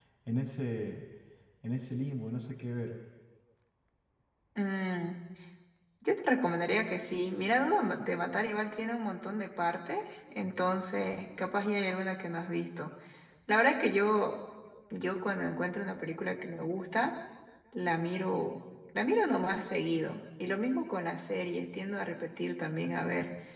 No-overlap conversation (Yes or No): Yes